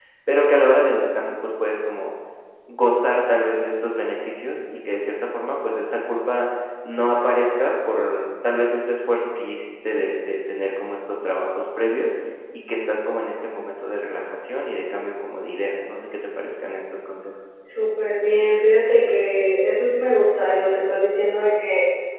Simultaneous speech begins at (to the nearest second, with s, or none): none